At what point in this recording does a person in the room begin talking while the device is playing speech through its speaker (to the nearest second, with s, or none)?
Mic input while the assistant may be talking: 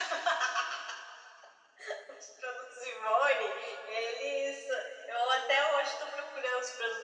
none